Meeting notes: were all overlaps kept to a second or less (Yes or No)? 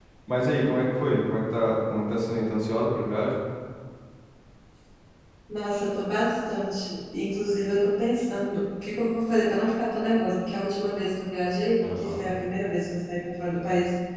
Yes